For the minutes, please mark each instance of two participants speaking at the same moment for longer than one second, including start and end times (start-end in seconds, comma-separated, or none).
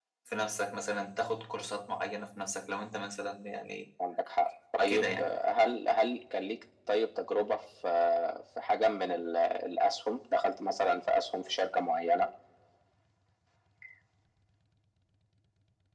none